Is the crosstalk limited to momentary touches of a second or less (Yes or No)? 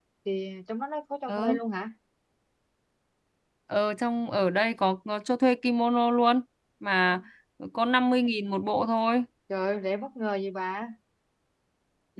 Yes